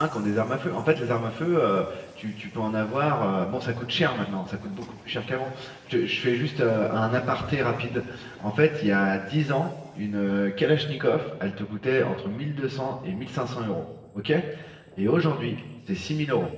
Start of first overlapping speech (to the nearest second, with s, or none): none